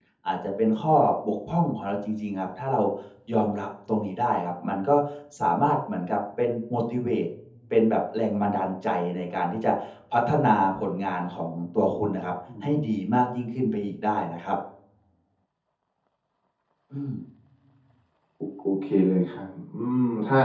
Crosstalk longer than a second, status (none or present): none